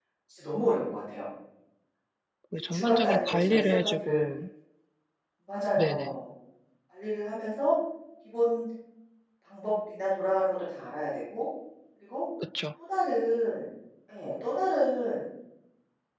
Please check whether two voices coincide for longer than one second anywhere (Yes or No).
Yes